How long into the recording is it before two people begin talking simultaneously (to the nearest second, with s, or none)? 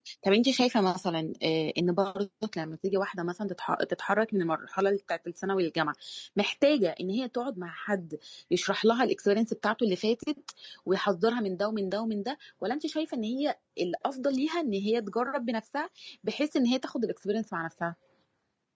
none